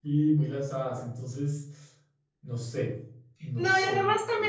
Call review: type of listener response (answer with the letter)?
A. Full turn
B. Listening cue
A